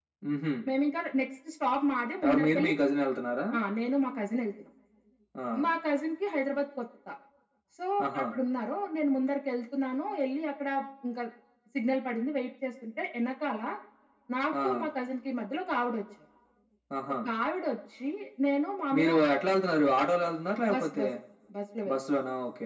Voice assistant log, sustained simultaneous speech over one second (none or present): none